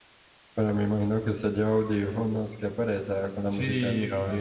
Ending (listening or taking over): taking over